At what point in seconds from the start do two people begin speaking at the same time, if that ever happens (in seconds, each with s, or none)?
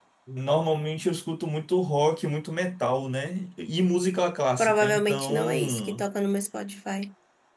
4.6 s